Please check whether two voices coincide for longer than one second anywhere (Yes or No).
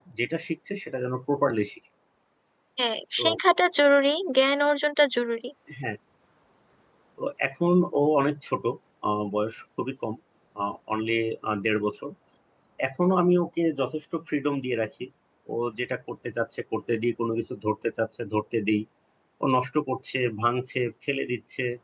No